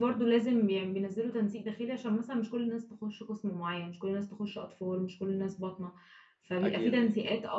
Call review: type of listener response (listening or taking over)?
listening